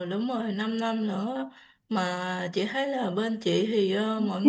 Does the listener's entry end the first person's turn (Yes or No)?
No